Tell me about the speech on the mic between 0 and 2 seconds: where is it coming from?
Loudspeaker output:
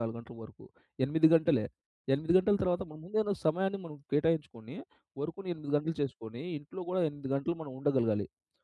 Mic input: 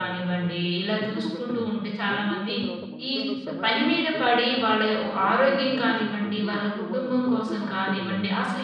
both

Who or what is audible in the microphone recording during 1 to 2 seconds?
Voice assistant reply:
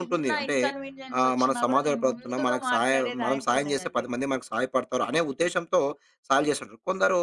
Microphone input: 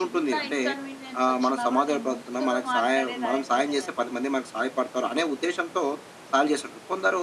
echo only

